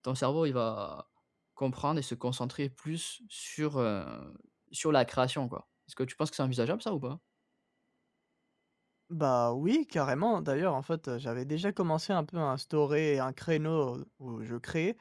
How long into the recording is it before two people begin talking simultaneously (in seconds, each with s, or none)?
none